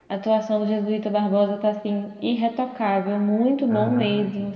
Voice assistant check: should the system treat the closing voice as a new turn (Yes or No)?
Yes